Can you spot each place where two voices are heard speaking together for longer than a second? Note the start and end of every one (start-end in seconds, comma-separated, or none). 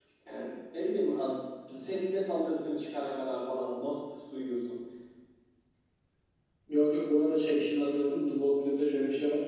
none